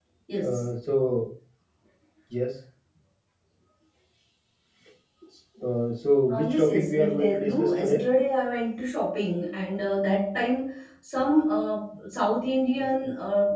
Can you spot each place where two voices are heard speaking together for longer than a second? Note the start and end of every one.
6.3-8.1

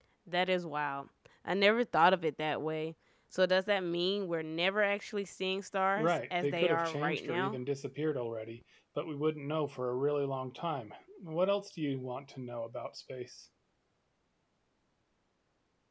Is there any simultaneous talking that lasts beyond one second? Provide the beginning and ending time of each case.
6.0-7.6

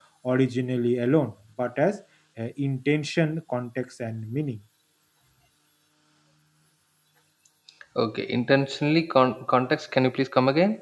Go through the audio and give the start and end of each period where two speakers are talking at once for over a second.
none

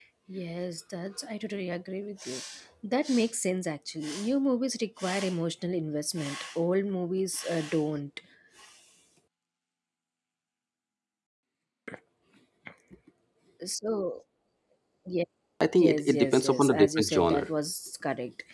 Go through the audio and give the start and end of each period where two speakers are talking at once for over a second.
15.8-17.5

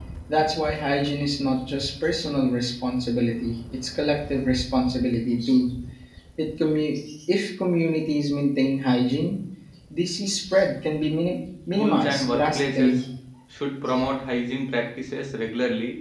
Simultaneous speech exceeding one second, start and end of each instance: 11.7-13.0

